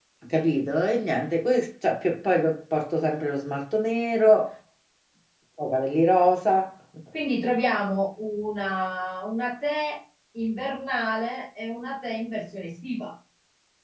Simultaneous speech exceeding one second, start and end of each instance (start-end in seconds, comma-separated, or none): none